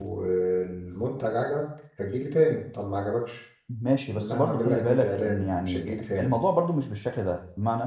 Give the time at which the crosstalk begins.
4.1 s

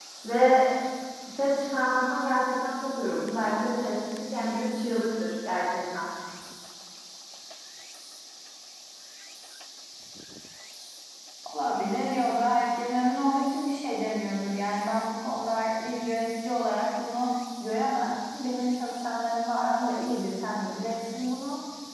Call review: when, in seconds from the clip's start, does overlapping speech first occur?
none

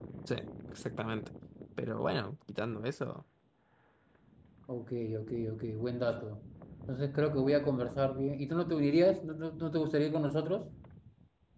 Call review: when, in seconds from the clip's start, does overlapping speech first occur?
none

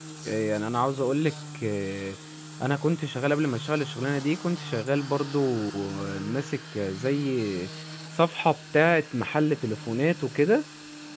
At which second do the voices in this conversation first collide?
none

